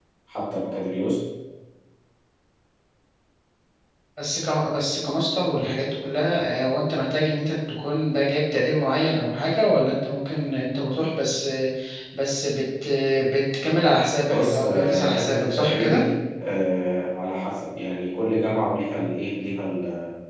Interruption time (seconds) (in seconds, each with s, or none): 14.3 s